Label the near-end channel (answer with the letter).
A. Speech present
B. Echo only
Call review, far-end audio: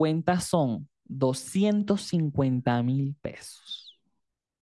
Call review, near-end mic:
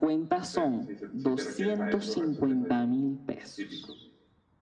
A